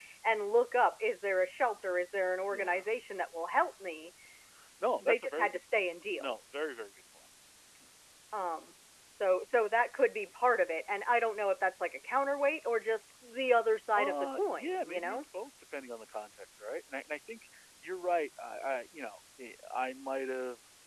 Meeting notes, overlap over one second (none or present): present